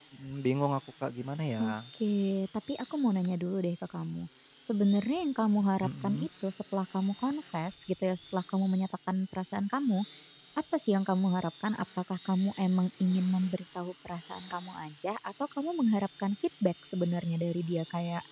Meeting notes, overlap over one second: none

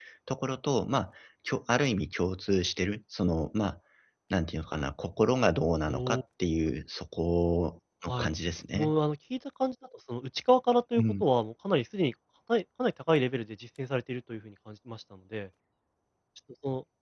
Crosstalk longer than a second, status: none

